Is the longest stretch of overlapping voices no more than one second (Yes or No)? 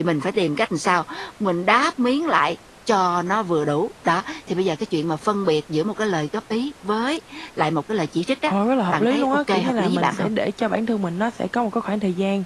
No